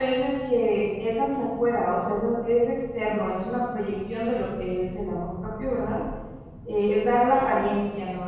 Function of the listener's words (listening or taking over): listening